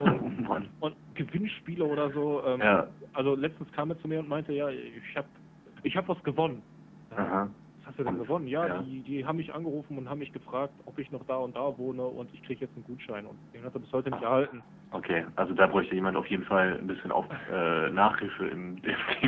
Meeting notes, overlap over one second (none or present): none